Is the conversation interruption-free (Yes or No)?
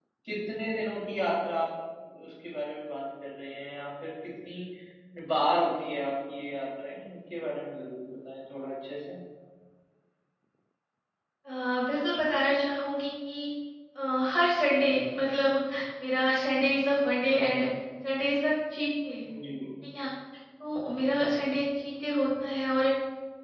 Yes